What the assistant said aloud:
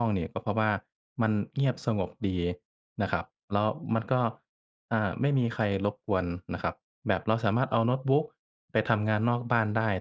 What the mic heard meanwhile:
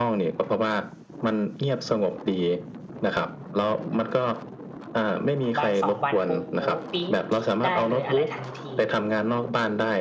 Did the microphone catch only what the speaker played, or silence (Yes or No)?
No